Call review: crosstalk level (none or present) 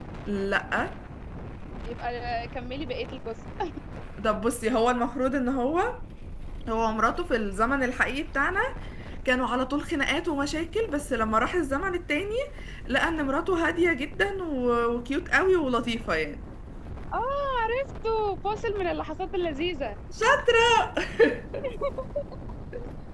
none